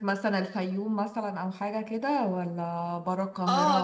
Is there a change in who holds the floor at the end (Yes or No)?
Yes